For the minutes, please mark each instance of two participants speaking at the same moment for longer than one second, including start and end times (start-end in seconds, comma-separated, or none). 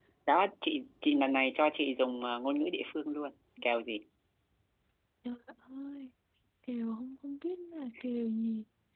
none